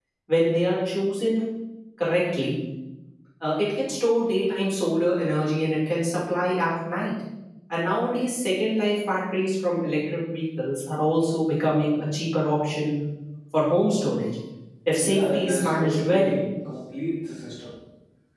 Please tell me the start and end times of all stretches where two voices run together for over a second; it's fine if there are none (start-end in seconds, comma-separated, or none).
15.0-16.3